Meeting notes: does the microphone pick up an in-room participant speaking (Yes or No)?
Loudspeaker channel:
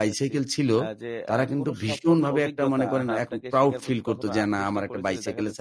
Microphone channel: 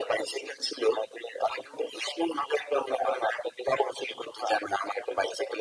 No